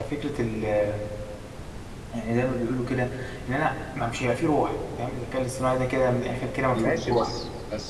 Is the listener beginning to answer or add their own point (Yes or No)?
Yes